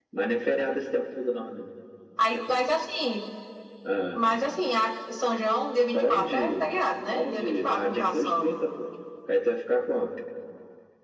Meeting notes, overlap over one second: present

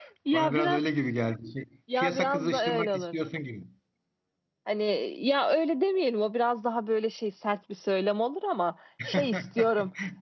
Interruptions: present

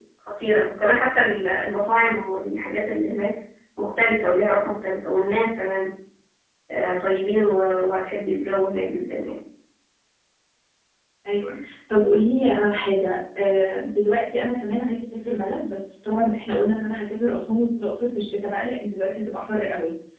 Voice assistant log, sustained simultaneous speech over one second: none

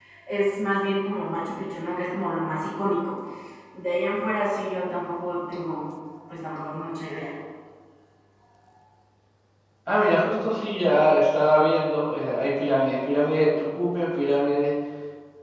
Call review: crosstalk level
none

